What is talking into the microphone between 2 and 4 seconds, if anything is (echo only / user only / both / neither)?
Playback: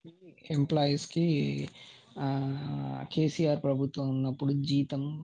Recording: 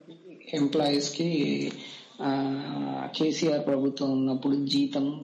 echo only